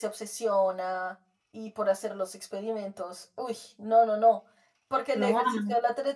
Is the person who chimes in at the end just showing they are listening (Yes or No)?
Yes